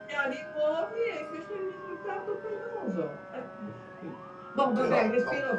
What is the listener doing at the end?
listening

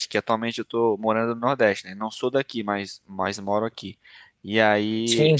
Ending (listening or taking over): listening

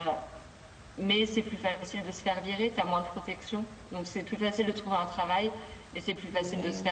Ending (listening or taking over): listening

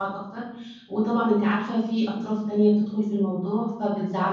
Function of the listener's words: taking over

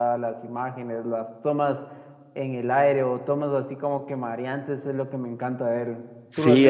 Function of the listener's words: taking over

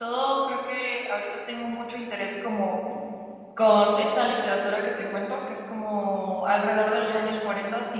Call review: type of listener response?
listening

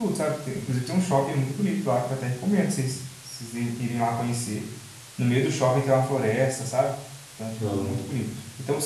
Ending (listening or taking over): listening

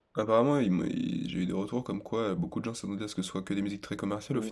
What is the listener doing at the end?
taking over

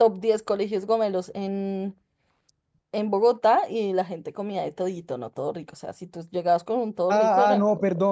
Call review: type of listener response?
taking over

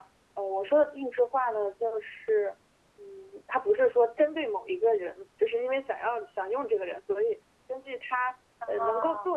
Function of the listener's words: listening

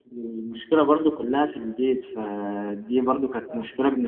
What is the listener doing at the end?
listening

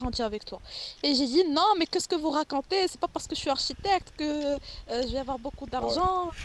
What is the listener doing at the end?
listening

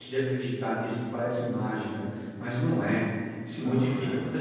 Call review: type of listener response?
listening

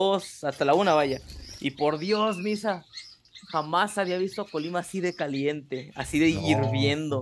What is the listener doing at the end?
taking over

